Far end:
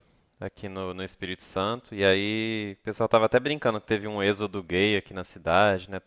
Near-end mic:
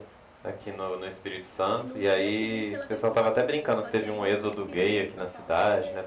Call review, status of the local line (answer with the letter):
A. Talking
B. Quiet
A